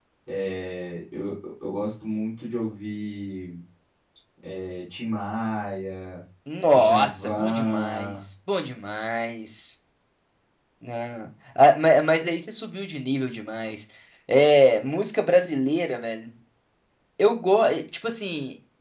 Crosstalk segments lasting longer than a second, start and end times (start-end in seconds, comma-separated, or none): 6.7-8.2